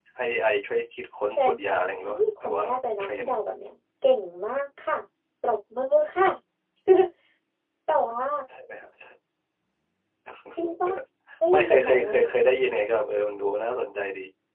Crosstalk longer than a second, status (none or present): present